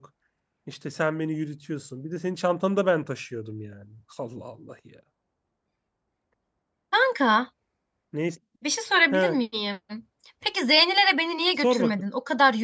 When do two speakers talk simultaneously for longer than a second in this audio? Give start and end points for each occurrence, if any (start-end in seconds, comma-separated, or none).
none